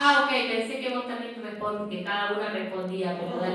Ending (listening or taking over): taking over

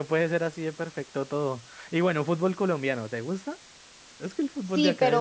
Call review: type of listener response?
taking over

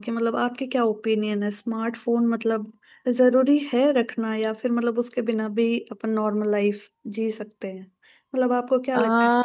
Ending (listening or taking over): listening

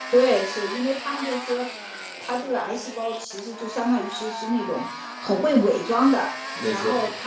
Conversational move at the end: listening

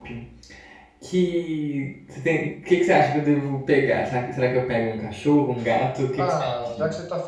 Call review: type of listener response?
taking over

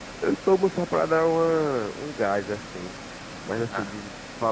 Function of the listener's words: listening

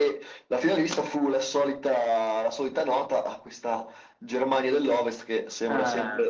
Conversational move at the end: listening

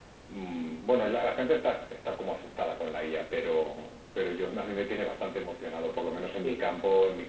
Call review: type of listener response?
listening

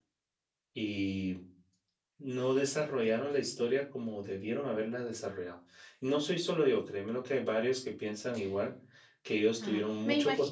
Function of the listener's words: taking over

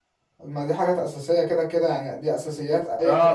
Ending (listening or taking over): taking over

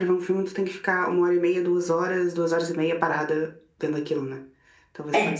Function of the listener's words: listening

